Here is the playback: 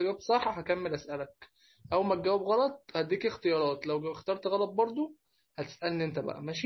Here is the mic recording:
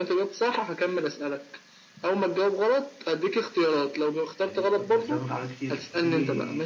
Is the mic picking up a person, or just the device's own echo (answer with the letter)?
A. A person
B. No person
A